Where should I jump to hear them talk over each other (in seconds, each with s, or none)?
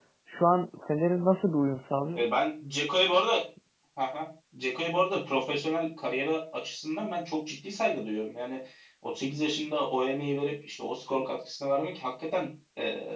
none